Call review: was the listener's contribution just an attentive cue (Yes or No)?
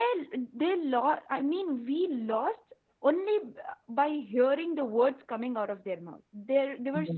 Yes